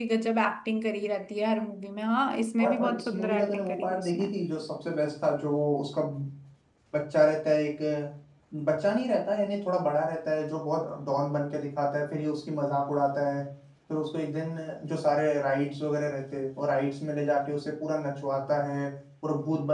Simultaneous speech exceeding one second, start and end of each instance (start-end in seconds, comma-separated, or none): 2.6-4.3